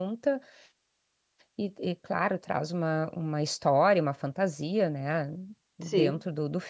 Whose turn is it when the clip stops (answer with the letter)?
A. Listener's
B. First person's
B